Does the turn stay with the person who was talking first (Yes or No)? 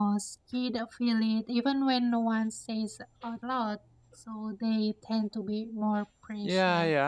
No